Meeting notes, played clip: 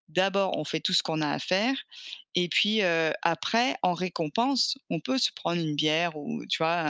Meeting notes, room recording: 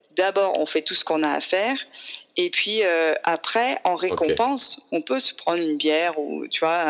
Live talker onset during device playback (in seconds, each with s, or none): 4.1 s